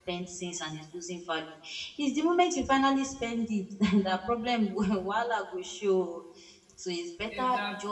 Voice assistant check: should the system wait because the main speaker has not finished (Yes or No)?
Yes